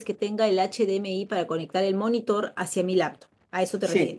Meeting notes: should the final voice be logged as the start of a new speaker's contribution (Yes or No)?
Yes